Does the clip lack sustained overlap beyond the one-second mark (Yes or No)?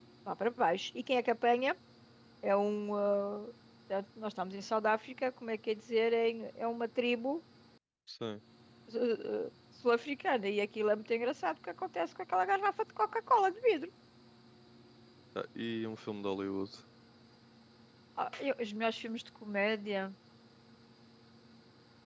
Yes